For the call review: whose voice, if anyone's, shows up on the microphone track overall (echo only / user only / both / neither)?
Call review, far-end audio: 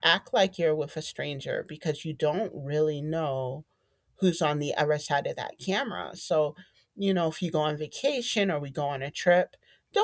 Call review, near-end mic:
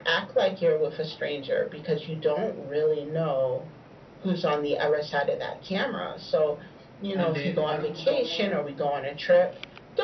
both